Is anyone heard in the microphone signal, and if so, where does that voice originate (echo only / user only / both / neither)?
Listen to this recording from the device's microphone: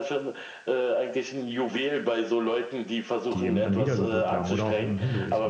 both